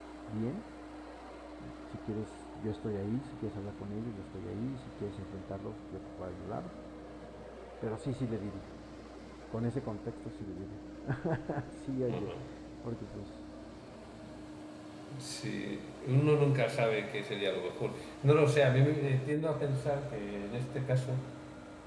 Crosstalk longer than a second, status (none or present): none